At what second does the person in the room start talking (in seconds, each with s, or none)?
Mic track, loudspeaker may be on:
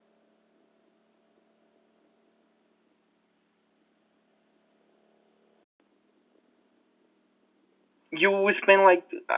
8.1 s